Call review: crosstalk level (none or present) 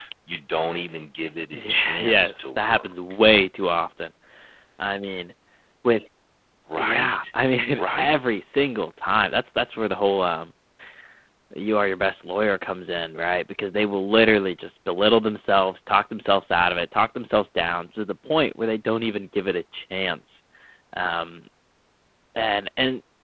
present